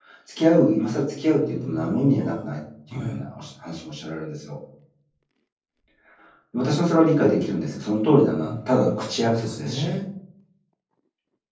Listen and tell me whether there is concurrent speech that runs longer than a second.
Yes, from 1.2 s

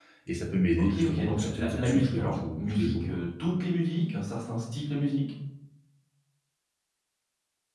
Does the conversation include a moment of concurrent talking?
Yes, from 0.8 s

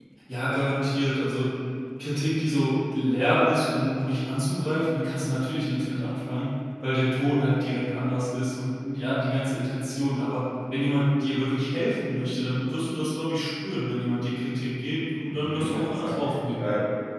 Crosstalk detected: Yes, from 15.3 s

